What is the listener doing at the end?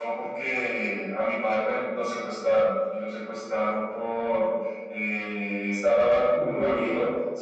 listening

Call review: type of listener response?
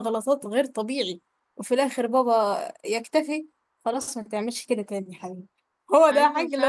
taking over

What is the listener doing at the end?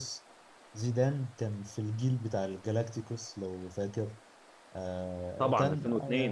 listening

